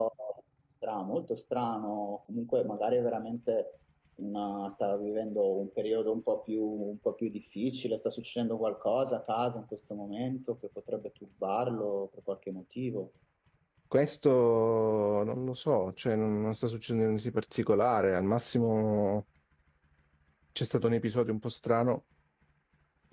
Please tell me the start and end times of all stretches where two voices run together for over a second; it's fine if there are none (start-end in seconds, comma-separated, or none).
none